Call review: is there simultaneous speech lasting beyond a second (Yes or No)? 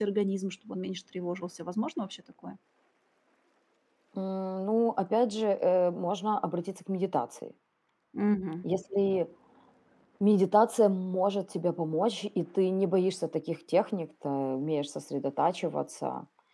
No